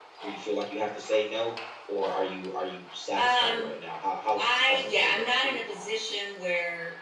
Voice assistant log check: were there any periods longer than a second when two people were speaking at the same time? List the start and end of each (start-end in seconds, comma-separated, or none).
4.3-5.6